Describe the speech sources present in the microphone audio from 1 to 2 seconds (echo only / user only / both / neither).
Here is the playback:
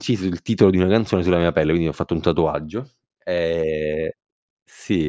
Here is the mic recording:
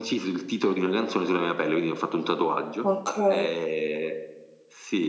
echo only